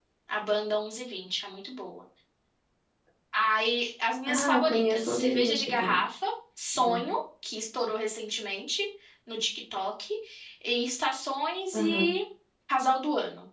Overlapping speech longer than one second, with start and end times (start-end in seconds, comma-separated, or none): 4.2-6.0